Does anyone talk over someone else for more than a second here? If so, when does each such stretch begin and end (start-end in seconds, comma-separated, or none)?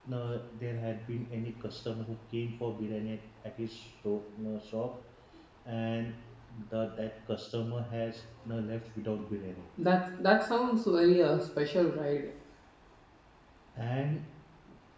none